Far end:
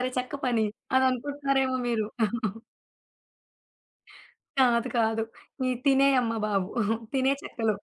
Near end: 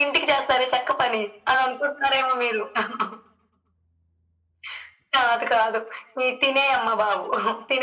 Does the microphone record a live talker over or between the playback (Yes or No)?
No